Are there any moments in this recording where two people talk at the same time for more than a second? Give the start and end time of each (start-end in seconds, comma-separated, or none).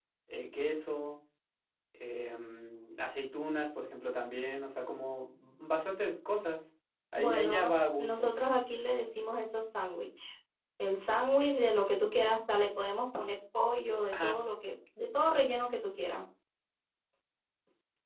7.2-8.4